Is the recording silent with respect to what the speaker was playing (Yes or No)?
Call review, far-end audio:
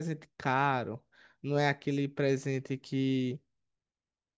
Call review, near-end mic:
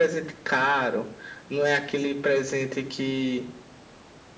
No